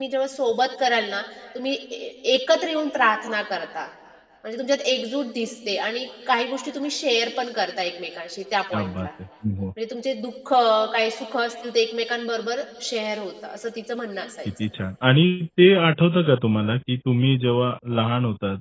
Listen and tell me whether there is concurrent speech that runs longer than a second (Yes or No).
No